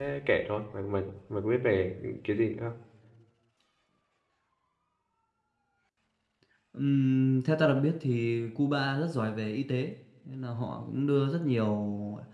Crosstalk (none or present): none